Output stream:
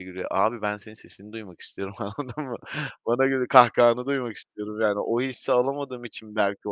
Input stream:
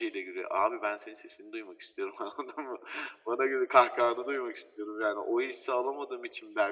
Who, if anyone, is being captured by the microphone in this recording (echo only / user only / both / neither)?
echo only